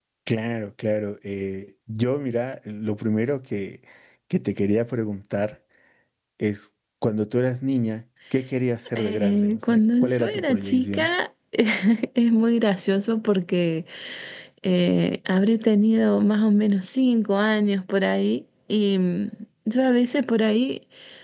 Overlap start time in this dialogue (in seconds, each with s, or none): 8.9 s